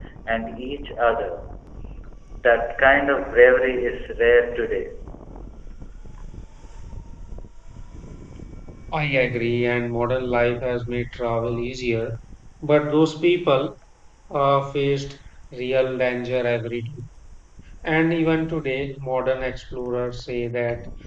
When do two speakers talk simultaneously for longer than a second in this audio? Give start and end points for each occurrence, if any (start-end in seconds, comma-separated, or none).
none